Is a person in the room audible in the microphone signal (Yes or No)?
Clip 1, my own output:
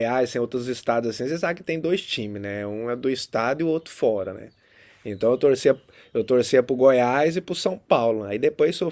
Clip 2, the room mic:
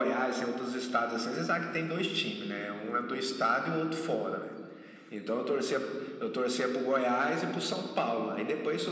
No